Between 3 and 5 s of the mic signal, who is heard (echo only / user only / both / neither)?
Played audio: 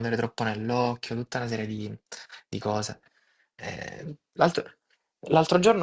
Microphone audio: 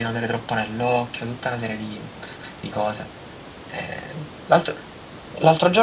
echo only